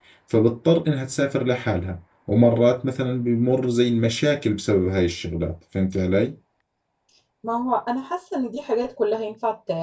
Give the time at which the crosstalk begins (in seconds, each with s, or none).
none